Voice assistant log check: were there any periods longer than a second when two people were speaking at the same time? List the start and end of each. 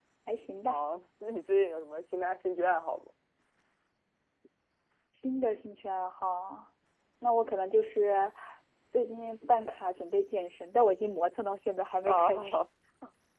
none

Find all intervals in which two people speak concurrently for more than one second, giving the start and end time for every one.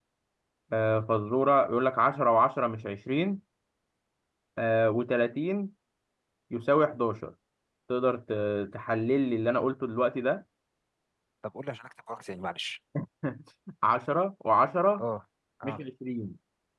none

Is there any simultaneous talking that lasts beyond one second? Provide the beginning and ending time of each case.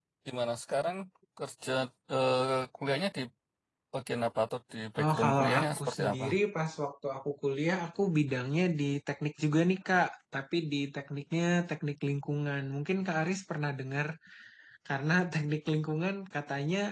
5.0-6.2

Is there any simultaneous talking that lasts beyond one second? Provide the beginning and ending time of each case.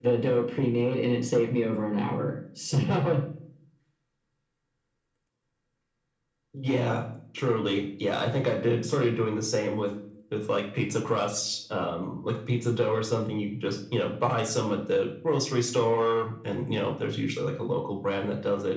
none

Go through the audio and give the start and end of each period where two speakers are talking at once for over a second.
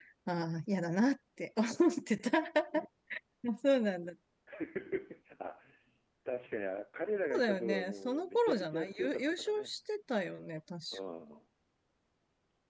7.2-9.8

